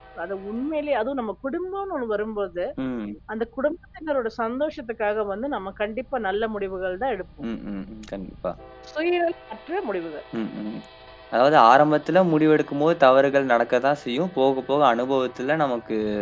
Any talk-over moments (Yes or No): No